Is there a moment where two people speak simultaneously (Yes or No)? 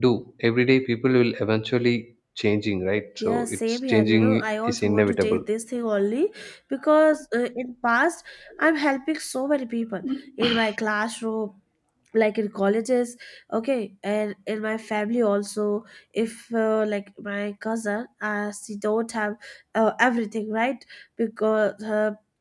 Yes